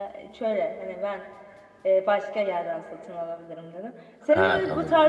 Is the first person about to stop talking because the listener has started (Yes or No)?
No